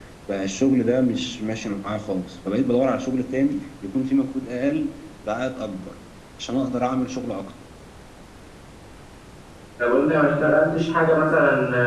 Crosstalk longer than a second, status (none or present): none